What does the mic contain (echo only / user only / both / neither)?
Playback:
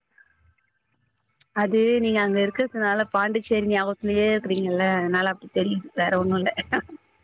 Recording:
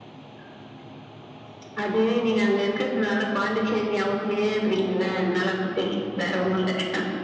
echo only